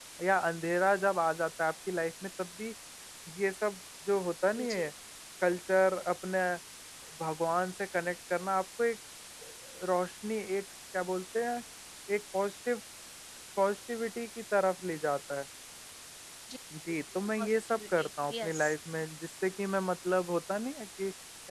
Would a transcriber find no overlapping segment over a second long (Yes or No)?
No